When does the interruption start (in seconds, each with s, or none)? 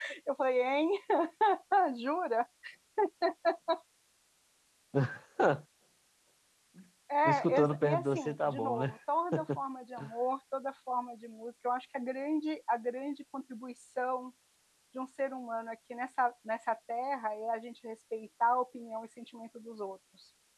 7.2 s